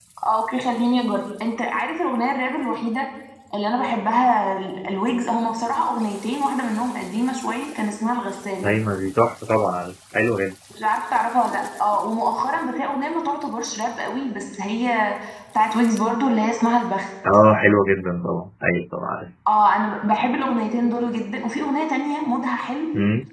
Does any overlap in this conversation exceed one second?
No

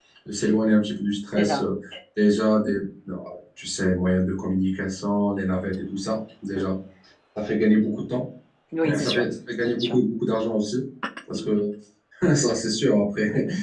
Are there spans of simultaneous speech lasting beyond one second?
No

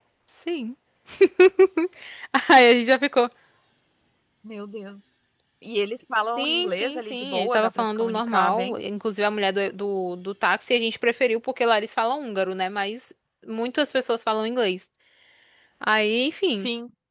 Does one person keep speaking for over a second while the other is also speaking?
Yes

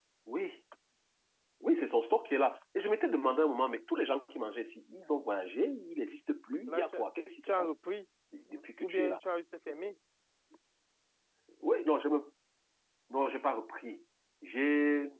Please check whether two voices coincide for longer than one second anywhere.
No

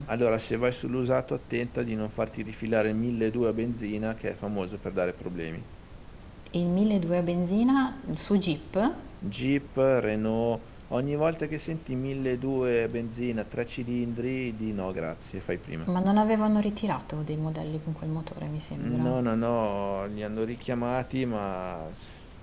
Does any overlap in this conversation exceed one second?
No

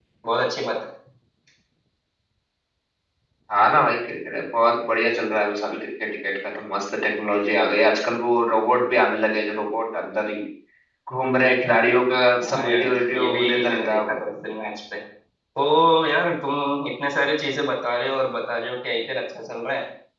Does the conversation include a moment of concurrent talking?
Yes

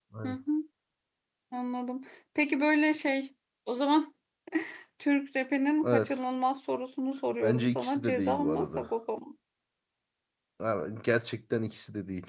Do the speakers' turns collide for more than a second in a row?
Yes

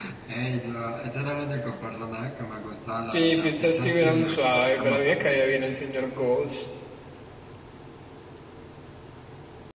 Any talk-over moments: Yes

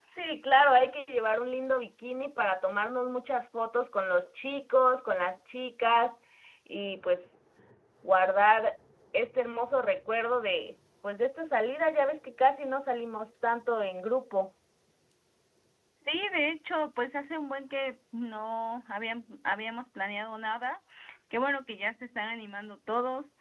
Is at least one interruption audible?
No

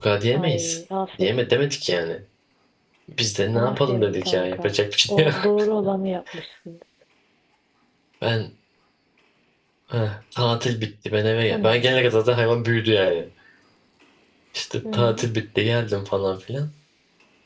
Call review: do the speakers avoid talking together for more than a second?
No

